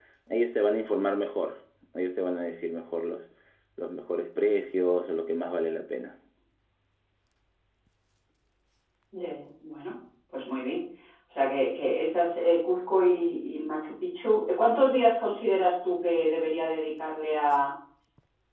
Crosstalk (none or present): none